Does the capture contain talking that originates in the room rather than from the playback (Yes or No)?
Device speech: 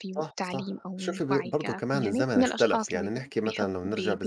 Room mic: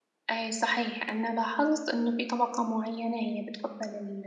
Yes